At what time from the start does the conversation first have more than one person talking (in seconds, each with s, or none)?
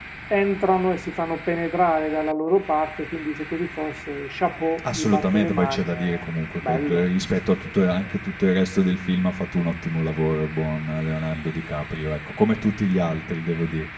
4.8 s